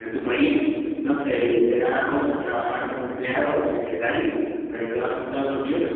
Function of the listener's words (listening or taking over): listening